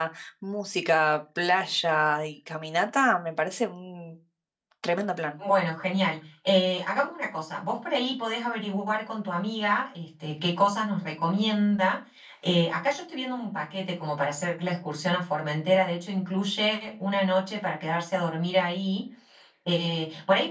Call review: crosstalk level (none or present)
none